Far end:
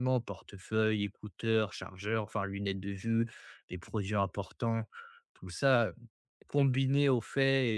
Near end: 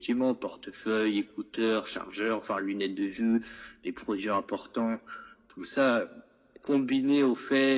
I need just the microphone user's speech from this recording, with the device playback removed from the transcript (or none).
none